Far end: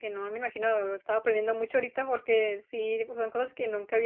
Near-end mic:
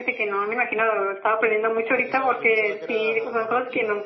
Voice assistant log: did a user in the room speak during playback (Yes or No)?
Yes